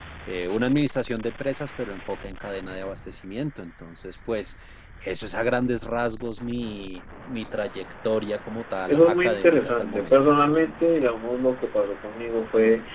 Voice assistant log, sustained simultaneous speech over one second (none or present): present